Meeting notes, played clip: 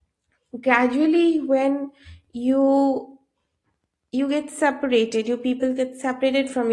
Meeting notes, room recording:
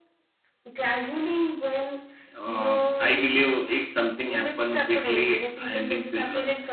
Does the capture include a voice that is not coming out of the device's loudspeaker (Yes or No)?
Yes